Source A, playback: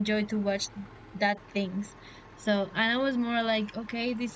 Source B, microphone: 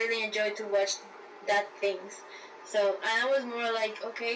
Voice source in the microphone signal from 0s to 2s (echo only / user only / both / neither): echo only